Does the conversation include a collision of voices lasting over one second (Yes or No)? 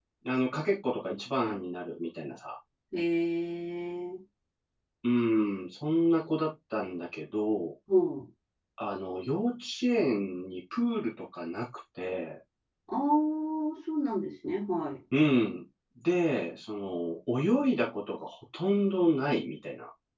No